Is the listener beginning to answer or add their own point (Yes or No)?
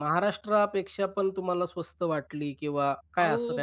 Yes